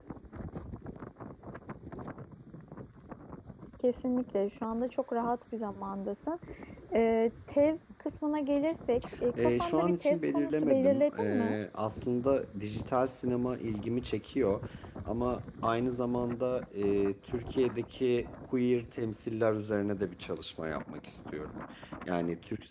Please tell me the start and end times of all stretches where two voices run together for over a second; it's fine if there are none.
9.4-11.6

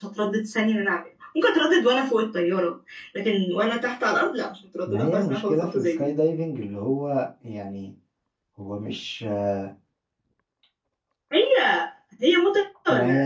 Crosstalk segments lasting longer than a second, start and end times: 4.9-6.1

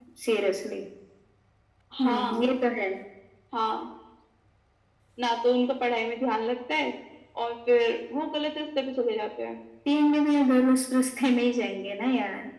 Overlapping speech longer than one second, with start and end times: none

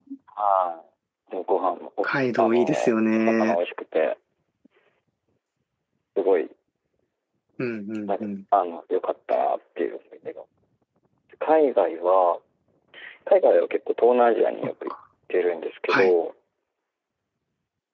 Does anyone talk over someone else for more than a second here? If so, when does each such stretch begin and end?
2.0-3.6

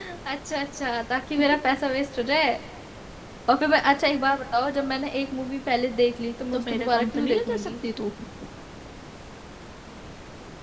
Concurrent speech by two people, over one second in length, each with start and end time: 6.5-7.7

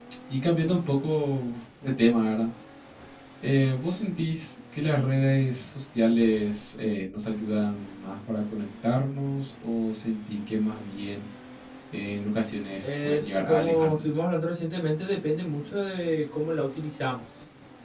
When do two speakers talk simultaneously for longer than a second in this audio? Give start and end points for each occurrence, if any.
12.8-14.1

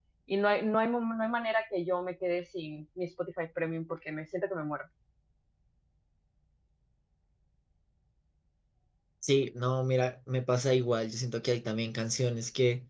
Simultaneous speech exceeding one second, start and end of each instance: none

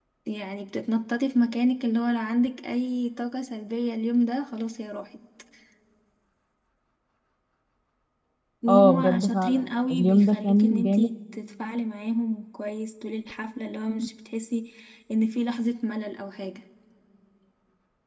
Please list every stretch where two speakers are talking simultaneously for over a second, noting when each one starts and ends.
8.7-11.1

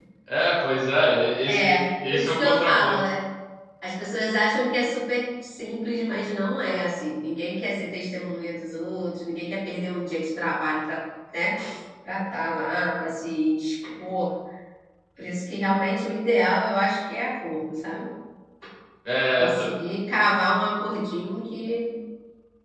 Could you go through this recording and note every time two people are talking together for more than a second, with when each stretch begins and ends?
1.4-3.0

